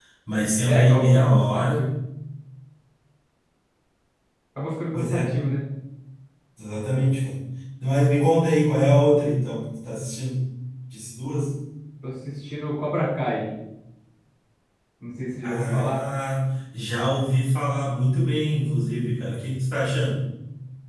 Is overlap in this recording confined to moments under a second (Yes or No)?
No